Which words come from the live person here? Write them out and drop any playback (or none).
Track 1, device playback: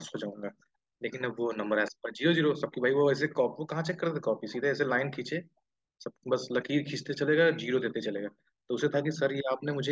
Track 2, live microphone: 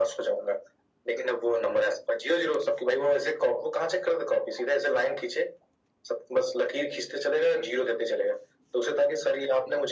none